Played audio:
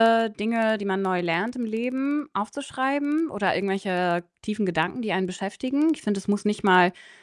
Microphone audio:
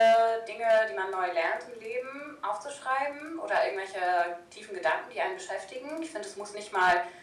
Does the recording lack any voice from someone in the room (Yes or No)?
Yes